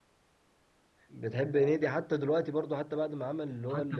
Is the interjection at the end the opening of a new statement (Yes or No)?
Yes